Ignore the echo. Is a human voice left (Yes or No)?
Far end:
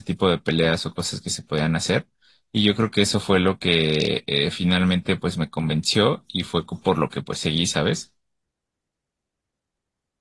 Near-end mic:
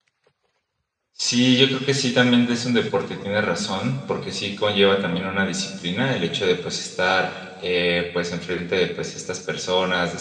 Yes